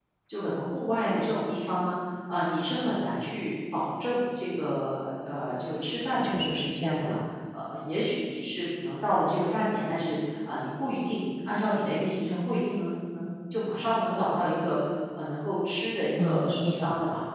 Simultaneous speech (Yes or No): Yes